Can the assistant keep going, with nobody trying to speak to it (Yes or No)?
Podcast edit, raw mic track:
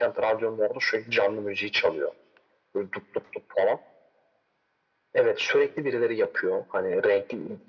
Yes